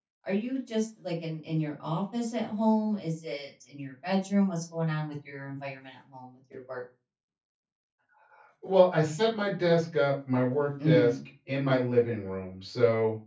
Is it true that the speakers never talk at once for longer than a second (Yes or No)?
Yes